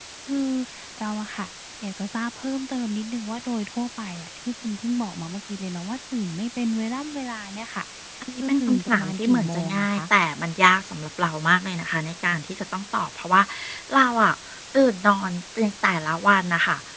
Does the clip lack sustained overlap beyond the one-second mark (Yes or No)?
No